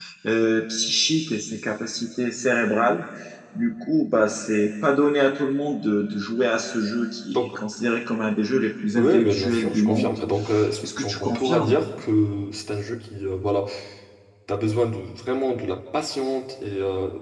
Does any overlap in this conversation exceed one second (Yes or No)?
Yes